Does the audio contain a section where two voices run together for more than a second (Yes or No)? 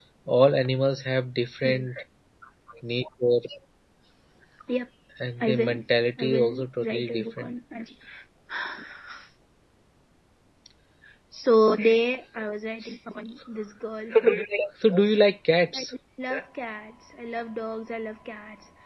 Yes